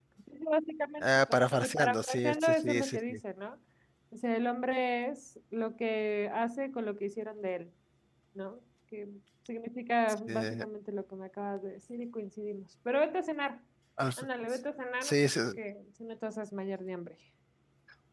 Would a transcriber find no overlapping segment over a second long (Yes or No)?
No